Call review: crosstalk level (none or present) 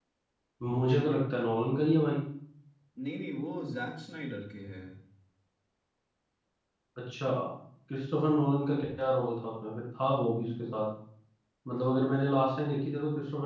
none